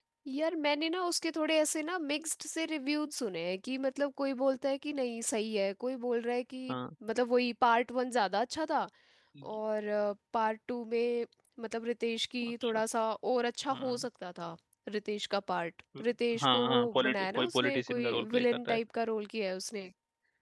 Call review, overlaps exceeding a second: present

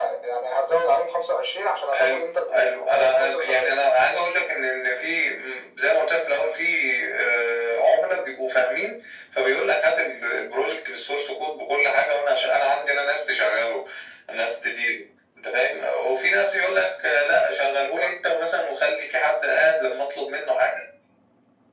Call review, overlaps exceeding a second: present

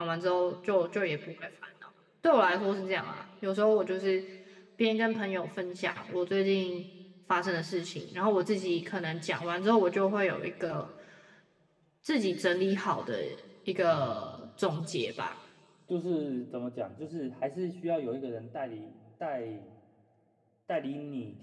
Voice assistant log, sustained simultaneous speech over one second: none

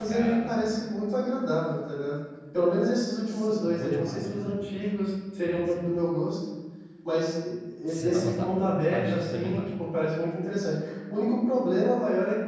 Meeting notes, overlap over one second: present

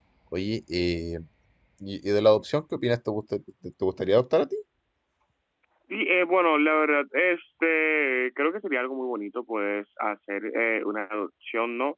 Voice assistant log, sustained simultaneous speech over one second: none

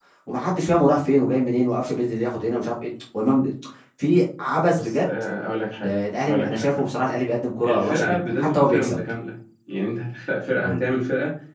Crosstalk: present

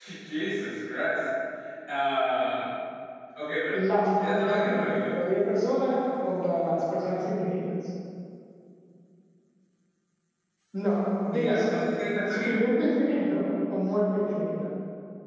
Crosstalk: present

